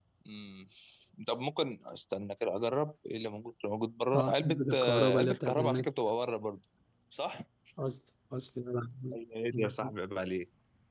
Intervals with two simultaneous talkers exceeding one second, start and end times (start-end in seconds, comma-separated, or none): 4.1-5.9